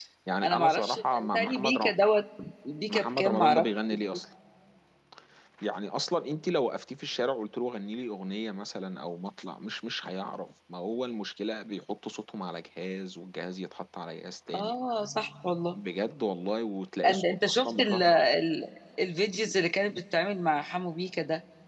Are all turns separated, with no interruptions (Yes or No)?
No